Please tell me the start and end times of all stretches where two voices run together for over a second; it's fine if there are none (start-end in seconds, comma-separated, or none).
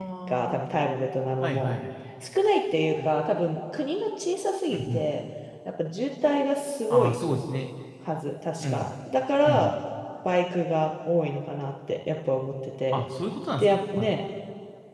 none